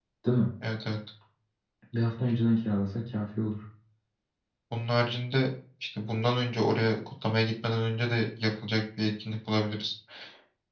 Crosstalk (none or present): none